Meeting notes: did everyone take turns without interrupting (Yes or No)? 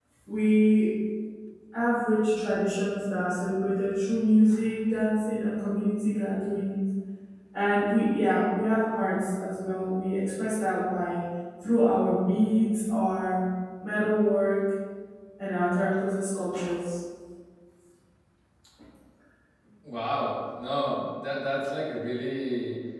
Yes